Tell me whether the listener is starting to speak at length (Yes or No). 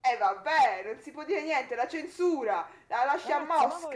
Yes